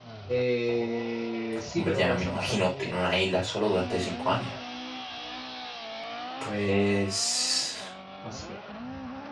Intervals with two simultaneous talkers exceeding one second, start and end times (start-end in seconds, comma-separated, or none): 1.8-3.0